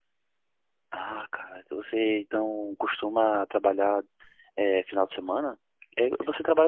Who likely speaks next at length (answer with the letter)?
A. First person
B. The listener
A